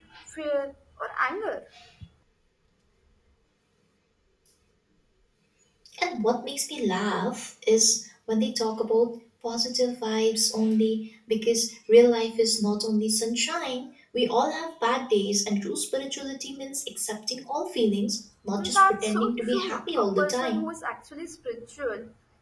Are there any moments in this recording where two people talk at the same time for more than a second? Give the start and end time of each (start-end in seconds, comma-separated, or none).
18.6-20.6